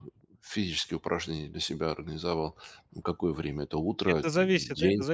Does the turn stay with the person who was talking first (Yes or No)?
No